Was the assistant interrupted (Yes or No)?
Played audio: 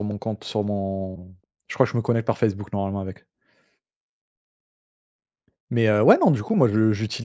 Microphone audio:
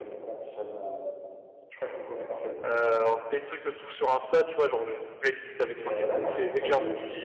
Yes